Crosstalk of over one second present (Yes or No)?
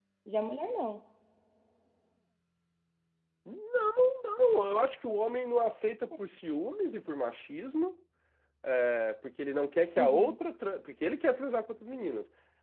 No